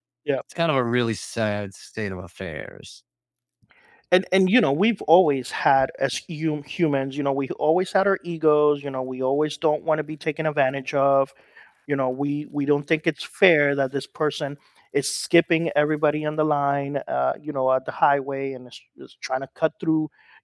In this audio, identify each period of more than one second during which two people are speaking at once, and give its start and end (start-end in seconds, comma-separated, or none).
none